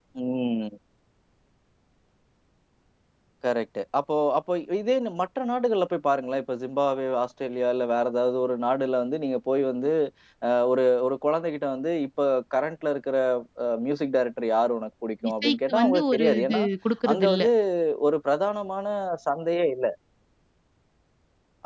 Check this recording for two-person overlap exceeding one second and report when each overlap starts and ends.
15.3-16.6

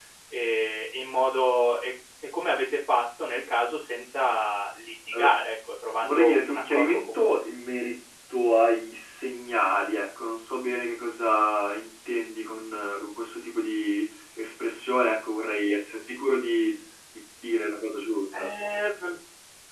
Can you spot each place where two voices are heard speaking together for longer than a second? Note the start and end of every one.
6.0-7.4

